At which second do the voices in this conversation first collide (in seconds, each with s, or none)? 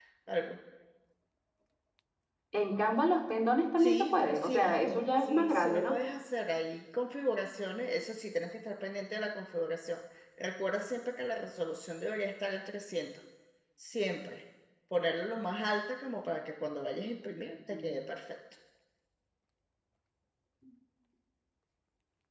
3.8 s